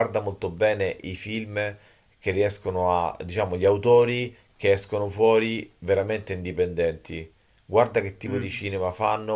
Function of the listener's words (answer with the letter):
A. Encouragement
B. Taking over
A